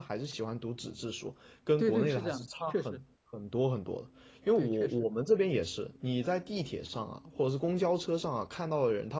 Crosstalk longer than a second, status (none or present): present